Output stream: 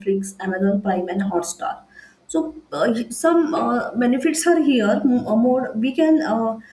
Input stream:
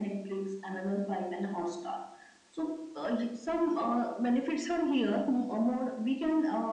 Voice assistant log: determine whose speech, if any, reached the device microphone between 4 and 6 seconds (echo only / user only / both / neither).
echo only